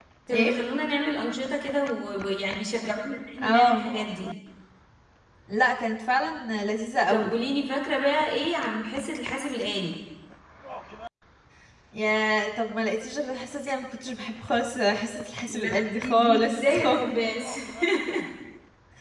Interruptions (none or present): present